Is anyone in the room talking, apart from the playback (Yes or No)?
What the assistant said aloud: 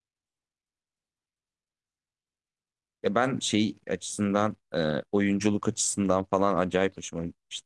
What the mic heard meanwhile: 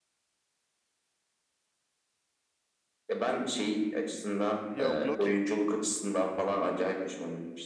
Yes